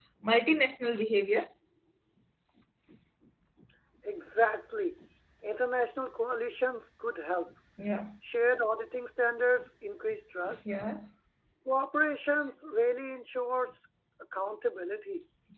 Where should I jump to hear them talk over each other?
none

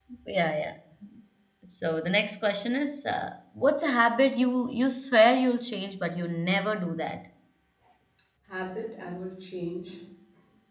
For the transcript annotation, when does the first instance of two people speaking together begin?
none

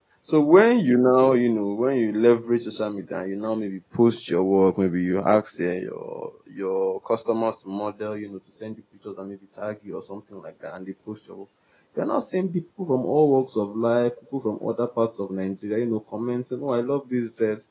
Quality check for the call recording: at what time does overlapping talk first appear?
none

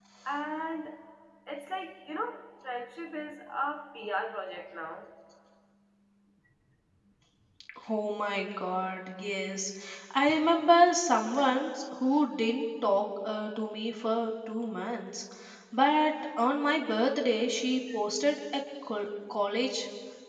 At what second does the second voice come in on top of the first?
none

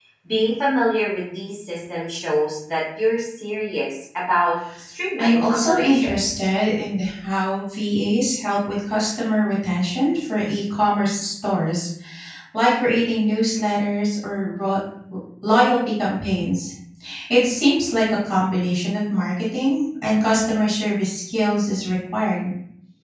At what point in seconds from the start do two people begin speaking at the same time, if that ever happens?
5 s

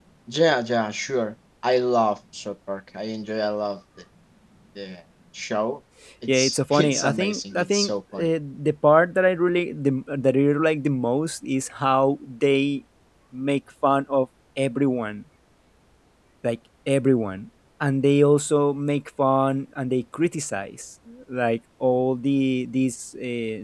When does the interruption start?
6 s

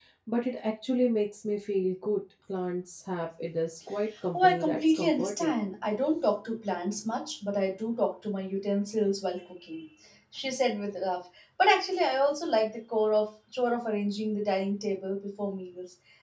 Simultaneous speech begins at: 4 s

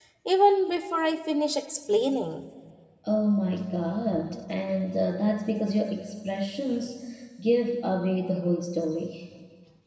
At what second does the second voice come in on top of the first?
none

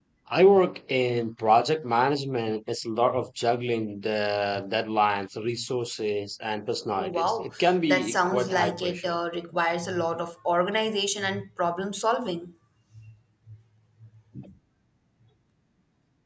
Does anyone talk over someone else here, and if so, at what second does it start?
7 s

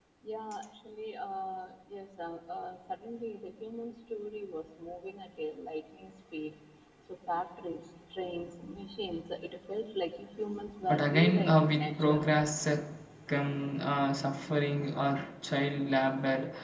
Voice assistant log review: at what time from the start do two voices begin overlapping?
11 s

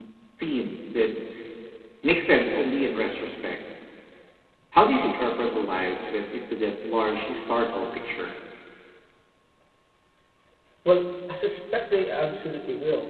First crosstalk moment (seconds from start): none

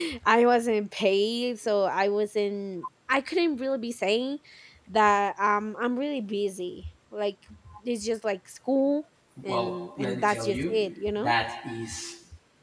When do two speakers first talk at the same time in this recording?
9 s

